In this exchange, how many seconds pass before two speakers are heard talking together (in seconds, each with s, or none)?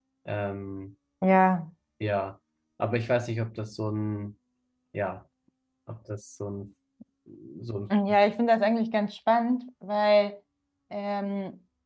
none